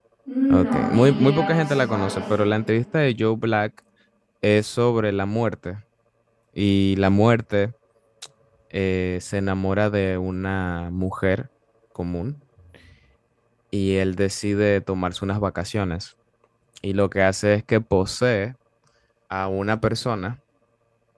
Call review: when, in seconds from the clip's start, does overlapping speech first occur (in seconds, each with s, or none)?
0.5 s